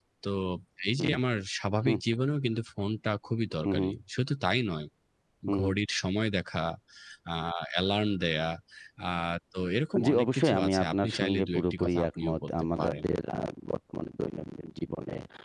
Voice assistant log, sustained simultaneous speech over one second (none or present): present